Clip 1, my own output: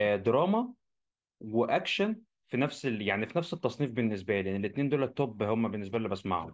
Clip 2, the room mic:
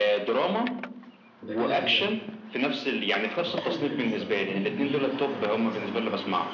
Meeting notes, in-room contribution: present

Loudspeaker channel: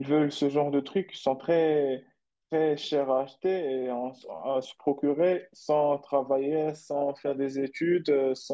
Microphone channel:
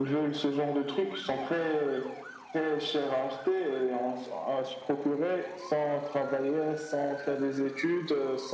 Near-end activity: none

